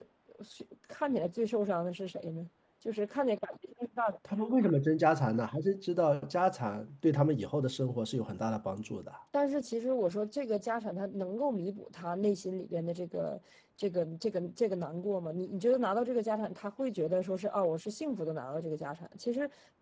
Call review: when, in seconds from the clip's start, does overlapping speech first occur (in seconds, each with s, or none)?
none